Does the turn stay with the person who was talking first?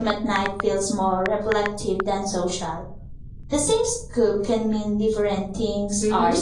No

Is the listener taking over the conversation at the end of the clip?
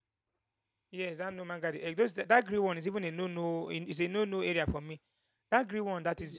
Yes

